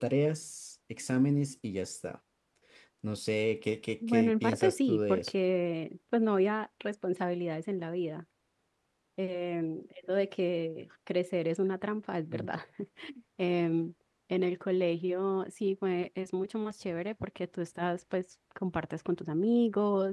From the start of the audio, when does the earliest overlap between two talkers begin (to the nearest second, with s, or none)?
4 s